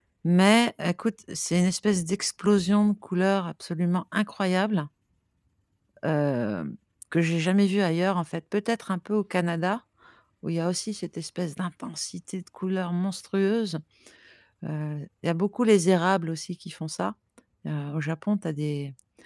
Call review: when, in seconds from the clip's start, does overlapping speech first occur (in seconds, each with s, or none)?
none